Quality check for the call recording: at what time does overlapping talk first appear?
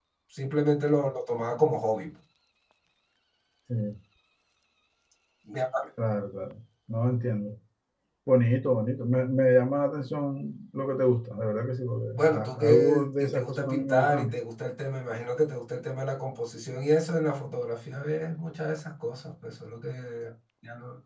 12.1 s

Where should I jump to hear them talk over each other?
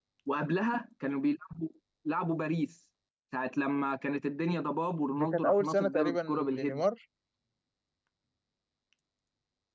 5.1 s

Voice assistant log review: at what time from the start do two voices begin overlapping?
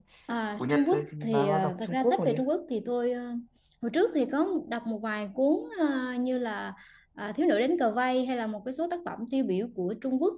0.6 s

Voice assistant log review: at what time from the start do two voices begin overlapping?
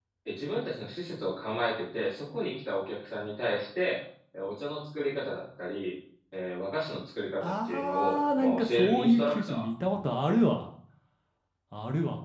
7.4 s

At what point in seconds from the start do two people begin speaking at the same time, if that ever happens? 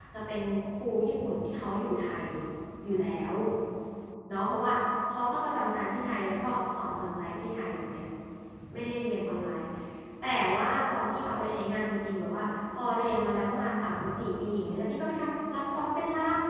none

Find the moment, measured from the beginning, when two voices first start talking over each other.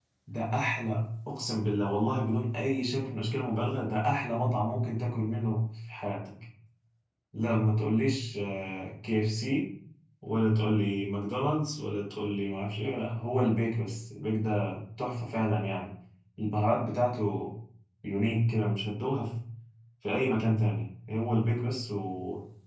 none

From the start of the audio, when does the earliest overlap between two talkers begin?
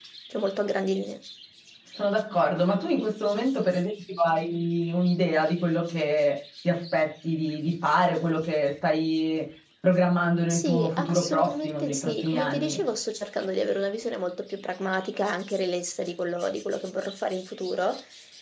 10.5 s

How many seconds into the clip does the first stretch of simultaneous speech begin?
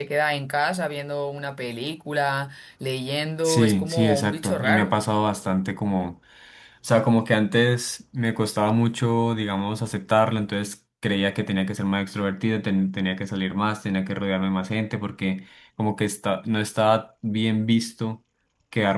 3.4 s

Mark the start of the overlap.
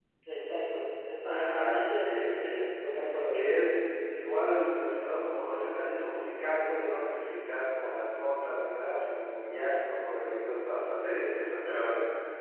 1.2 s

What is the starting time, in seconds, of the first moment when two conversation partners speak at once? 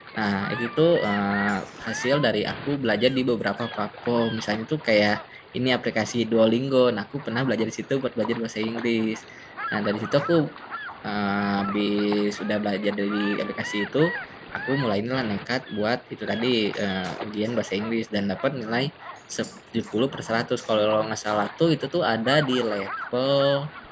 none

